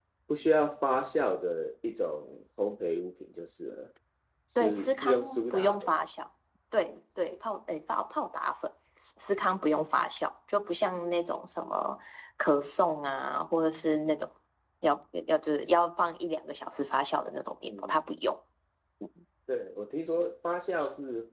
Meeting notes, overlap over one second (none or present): present